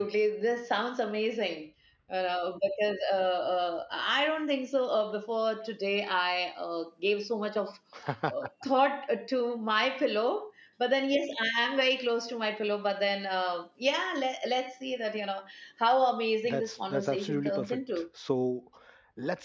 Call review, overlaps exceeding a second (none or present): present